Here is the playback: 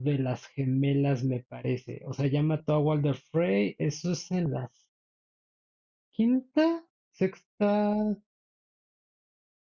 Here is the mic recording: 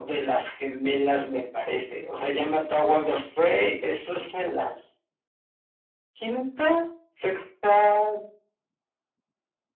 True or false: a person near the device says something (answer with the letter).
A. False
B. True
A